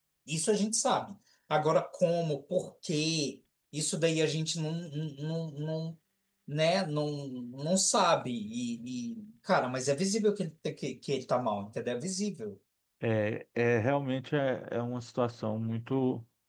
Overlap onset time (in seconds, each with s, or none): none